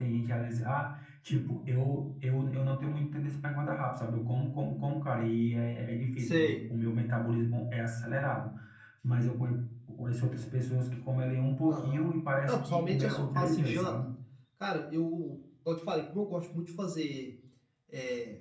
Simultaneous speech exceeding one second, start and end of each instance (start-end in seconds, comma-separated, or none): 12.5-13.9